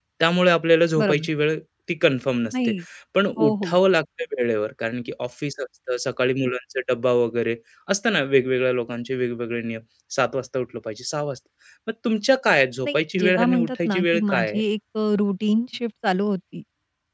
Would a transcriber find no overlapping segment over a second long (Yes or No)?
No